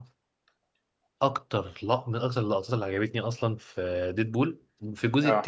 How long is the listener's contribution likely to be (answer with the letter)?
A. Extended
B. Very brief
B